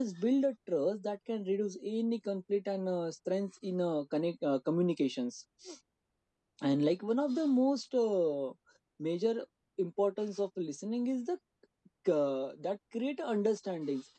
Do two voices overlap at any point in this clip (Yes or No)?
No